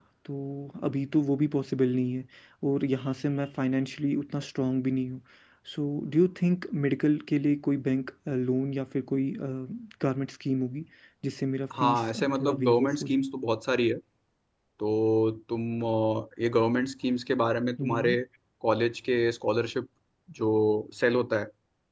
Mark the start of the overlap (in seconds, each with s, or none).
11.8 s